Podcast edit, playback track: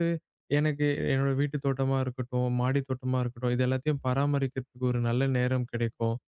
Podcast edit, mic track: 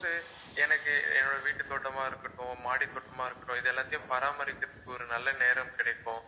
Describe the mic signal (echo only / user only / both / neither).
echo only